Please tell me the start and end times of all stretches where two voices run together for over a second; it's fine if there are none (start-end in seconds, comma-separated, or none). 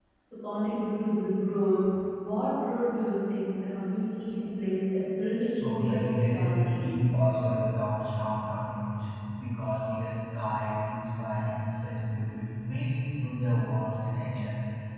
5.6-6.8